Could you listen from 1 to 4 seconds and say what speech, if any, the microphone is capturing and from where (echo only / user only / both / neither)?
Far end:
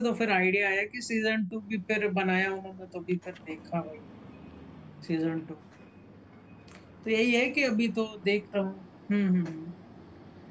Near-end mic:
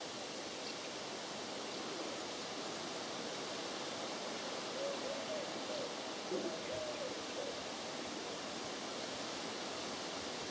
neither